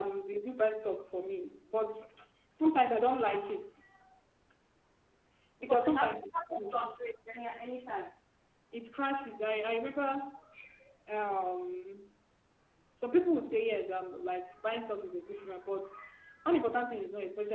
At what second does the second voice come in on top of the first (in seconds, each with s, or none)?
5.6 s